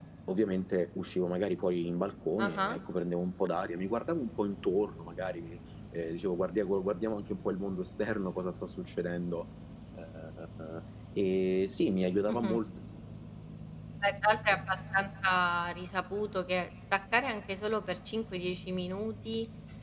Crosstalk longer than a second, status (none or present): none